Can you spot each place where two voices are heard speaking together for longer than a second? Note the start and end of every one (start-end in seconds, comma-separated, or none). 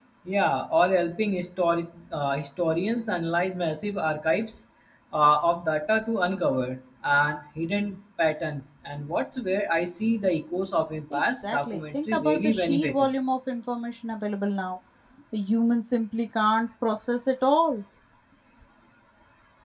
11.1-13.1